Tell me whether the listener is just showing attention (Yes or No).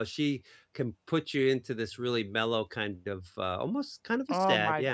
No